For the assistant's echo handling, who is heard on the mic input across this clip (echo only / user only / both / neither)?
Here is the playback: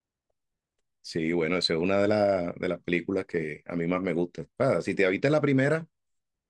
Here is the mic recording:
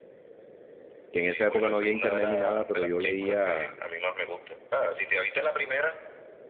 both